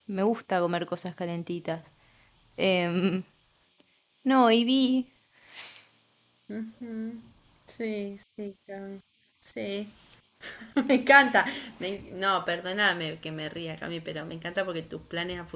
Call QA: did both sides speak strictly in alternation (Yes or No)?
Yes